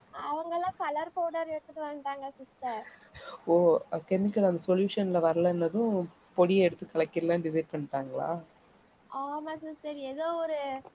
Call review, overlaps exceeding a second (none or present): none